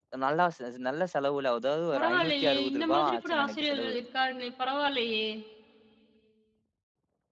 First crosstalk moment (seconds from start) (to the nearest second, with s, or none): 2 s